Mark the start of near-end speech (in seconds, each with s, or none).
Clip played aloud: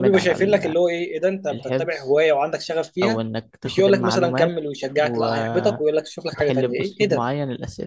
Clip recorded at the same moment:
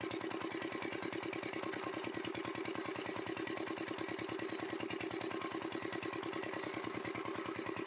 none